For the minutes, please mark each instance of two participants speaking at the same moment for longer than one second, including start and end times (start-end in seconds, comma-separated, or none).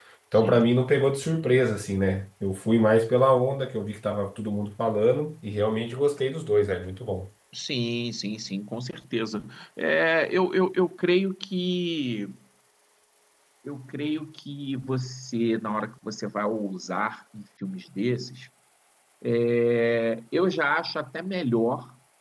none